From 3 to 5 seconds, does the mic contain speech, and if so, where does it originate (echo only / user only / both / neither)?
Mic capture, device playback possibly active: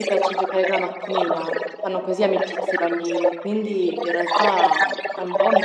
both